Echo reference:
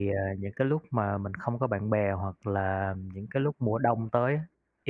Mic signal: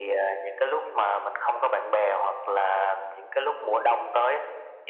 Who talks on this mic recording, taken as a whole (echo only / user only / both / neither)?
echo only